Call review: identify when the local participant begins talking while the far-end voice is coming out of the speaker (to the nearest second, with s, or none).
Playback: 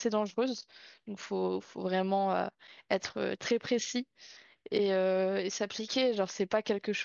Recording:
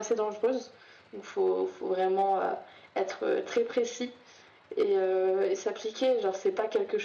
none